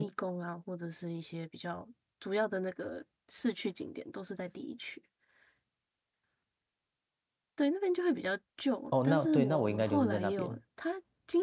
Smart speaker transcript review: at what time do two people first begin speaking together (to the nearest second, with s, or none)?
9 s